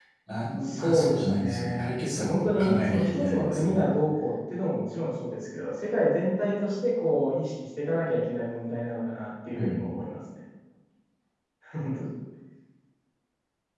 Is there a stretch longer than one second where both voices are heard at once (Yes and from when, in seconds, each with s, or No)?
Yes, from 0.6 s